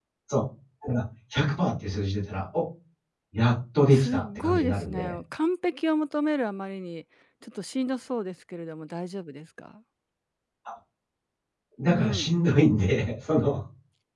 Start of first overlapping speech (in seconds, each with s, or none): 3.9 s